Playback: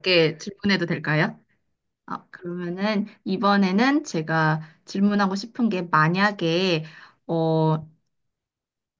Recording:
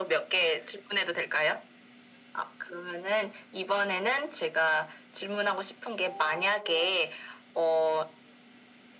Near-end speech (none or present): present